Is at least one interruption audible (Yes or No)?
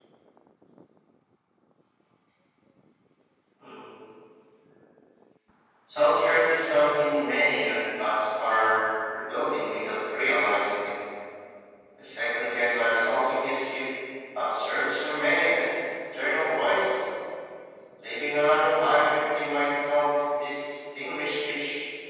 No